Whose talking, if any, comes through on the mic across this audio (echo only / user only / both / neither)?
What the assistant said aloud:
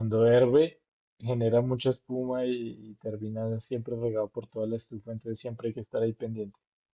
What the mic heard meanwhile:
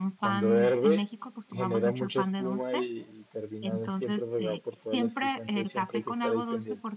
both